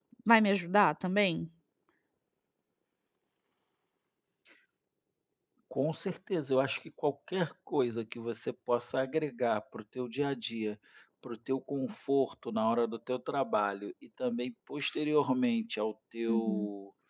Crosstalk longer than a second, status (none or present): none